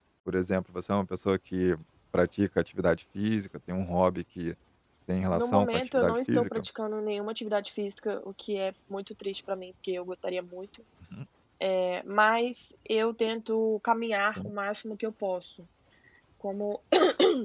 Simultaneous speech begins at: 5.3 s

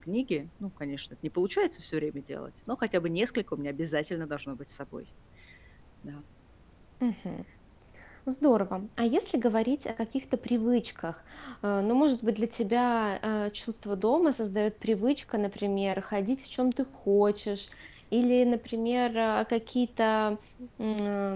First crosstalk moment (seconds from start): none

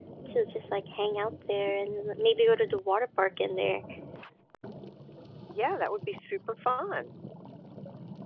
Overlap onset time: none

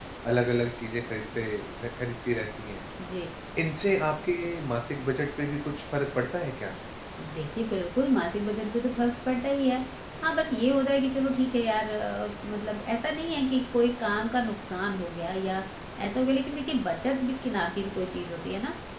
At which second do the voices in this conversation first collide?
none

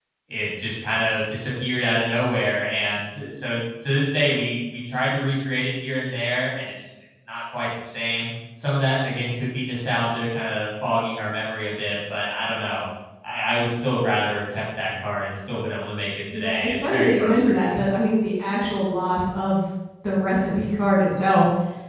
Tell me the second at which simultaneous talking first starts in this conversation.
16.3 s

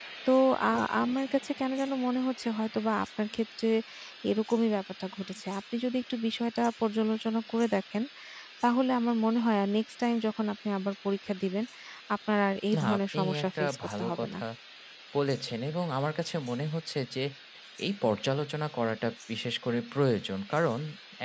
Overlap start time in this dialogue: 12.8 s

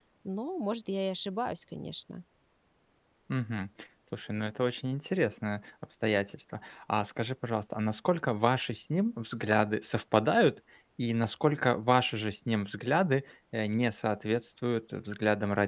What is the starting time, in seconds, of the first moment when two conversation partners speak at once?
none

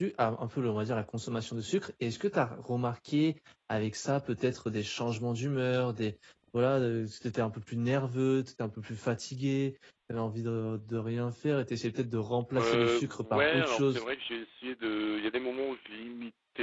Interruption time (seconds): 12.6 s

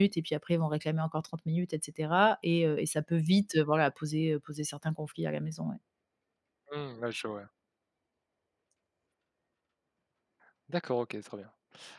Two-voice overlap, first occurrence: none

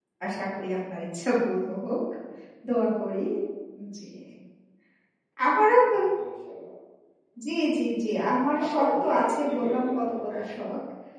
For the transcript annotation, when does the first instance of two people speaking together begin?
8.6 s

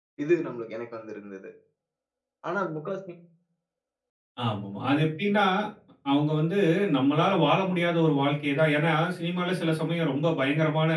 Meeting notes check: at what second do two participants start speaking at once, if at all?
none

